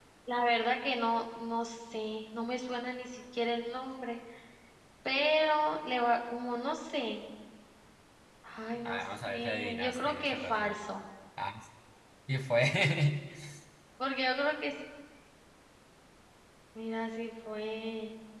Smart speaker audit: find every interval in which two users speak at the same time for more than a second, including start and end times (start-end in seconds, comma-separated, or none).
8.8-10.8